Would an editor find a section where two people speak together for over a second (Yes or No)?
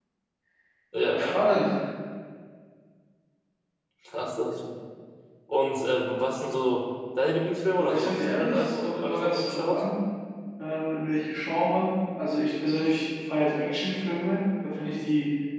Yes